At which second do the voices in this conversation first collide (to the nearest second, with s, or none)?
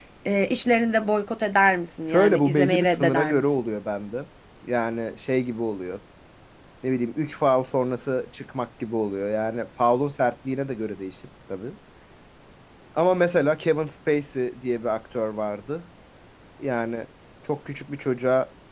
2 s